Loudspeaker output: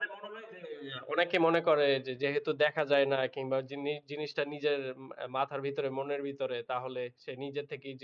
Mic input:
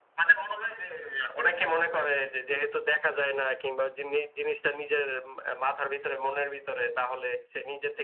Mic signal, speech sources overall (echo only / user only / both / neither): echo only